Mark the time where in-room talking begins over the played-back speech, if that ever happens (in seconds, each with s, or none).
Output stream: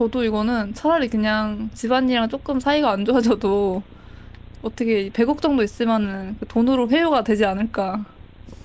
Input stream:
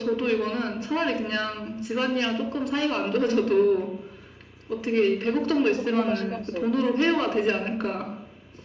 5.6 s